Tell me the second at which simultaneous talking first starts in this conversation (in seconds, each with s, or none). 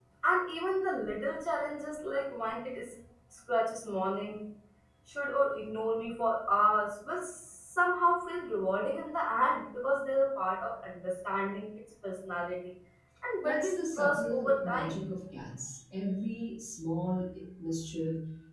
13.4 s